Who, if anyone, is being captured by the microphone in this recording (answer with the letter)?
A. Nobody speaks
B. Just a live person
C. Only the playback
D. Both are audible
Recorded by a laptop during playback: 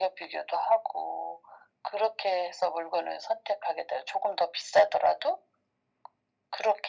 C